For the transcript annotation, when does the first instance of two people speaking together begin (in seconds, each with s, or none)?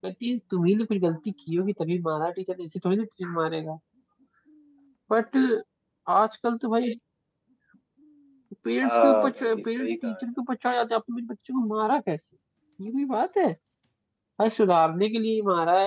8.8 s